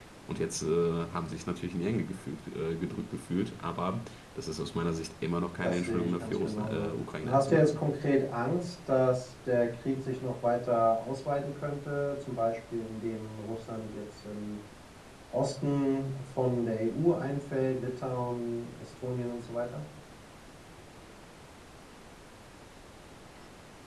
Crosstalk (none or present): present